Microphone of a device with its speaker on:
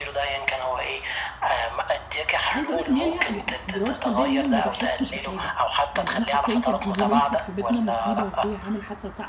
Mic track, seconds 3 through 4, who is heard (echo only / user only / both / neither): both